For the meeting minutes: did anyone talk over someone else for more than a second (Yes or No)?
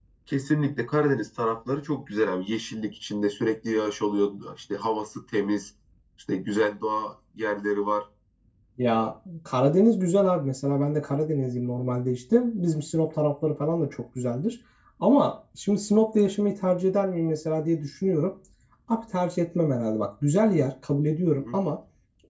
No